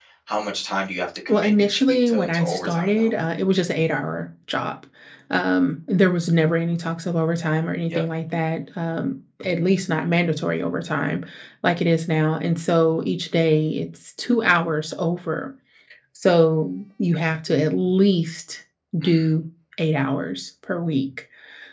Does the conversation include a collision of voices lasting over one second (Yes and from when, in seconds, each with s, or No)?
Yes, from 1.3 s